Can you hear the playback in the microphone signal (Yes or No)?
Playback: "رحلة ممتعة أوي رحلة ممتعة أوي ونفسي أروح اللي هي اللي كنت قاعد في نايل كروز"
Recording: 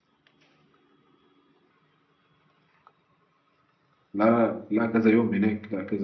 No